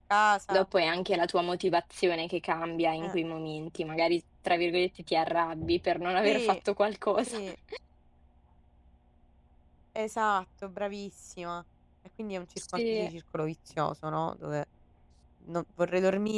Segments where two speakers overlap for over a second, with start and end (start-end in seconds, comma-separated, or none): none